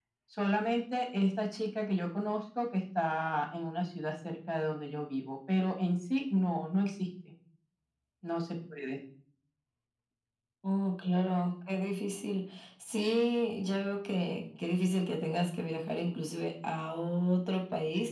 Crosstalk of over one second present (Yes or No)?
No